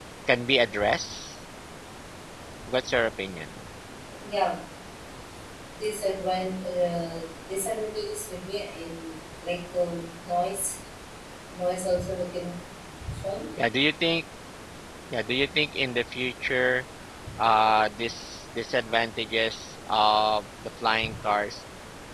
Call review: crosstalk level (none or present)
none